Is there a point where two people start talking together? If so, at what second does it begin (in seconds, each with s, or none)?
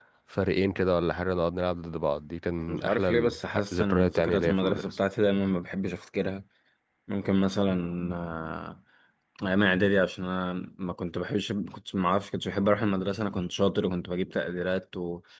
2.7 s